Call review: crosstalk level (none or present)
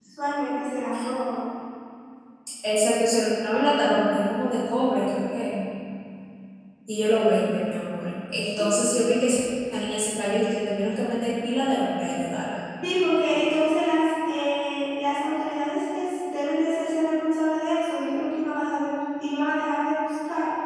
none